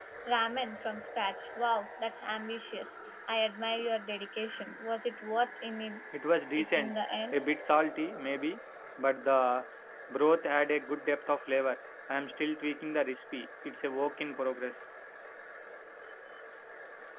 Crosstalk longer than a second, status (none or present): none